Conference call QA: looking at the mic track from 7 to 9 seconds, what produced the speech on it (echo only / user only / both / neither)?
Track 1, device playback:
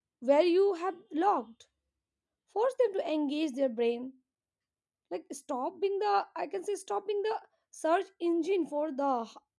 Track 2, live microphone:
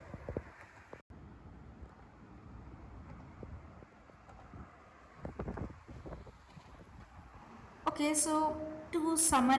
user only